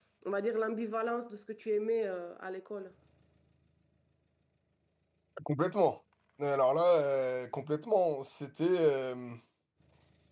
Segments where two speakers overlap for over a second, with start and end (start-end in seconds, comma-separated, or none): none